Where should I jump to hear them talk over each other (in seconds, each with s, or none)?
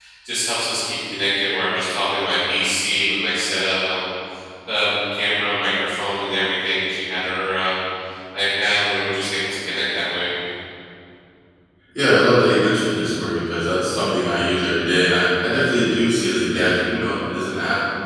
none